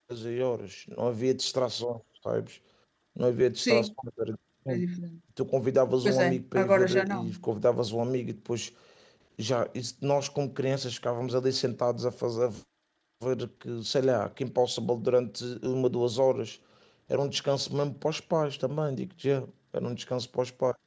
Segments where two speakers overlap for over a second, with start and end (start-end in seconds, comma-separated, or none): 6.0-7.3